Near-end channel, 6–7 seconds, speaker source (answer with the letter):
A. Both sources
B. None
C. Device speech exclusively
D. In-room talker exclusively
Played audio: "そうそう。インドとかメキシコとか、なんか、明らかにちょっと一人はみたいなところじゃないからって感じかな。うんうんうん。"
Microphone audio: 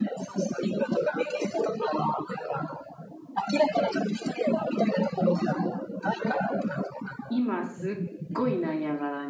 C